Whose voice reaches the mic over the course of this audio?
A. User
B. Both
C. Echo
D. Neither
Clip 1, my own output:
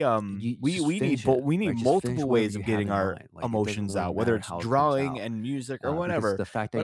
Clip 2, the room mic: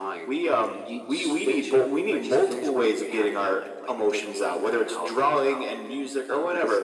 C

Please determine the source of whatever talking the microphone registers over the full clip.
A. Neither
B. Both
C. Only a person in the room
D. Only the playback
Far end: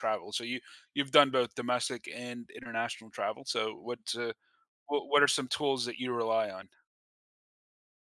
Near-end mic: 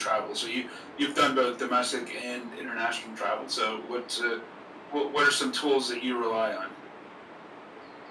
D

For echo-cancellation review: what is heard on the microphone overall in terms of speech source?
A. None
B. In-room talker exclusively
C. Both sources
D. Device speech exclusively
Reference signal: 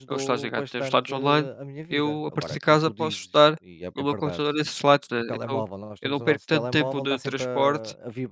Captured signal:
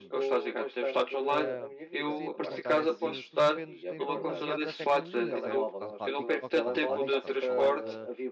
C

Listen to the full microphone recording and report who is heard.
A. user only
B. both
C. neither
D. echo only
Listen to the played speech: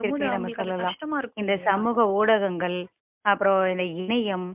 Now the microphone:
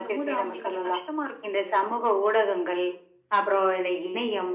D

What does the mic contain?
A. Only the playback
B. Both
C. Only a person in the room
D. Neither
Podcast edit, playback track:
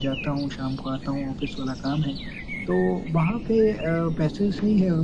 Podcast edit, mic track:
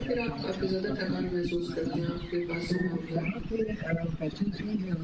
B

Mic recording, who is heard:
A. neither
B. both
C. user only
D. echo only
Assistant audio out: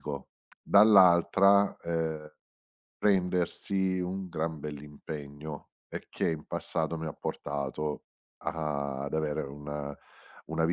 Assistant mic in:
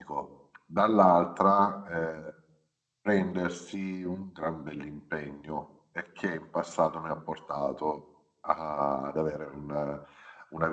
D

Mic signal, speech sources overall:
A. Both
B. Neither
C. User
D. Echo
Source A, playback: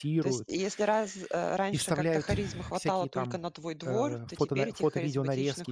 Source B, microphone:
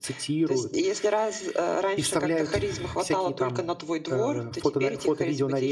D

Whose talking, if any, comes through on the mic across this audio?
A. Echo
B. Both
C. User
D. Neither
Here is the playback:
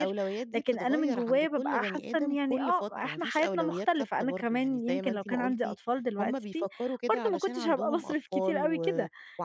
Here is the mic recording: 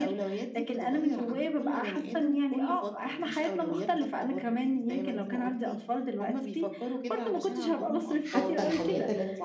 B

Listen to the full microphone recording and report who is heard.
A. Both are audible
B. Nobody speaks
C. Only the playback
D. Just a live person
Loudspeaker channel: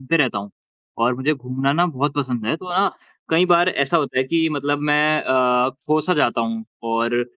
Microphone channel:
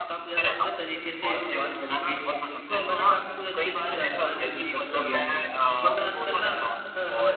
A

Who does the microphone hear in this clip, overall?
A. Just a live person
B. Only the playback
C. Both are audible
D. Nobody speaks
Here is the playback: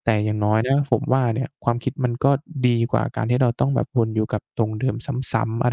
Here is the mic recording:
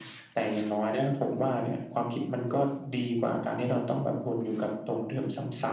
B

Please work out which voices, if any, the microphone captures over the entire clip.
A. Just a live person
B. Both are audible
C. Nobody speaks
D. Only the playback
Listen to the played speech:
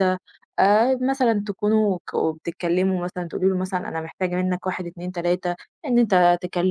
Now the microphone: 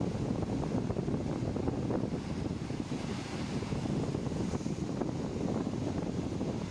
C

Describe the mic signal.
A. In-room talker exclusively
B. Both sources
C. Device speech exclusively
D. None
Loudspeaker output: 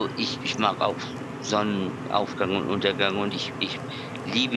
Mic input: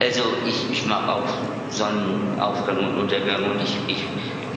C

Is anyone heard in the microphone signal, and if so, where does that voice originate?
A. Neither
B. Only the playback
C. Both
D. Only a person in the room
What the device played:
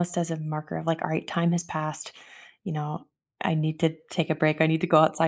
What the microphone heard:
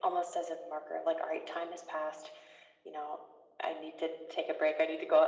B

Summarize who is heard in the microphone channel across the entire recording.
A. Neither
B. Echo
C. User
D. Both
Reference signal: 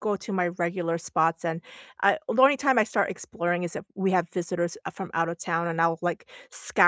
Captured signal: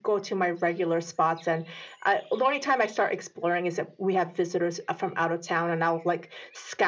B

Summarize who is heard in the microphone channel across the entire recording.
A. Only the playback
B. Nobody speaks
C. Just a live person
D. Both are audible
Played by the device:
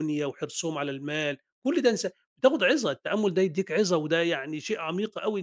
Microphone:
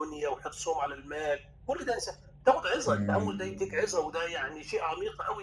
D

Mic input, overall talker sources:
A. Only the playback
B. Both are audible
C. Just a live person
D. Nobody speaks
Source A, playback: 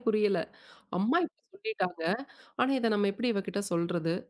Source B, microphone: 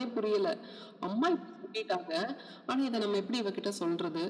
B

